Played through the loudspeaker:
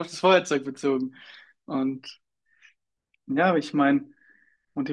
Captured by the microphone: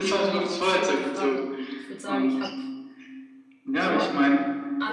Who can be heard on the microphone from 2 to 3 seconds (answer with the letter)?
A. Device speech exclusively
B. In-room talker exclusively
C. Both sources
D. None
C